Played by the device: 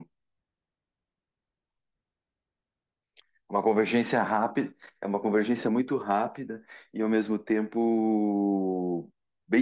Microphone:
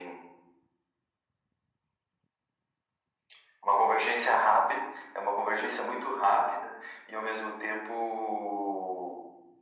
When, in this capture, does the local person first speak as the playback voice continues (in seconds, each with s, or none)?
none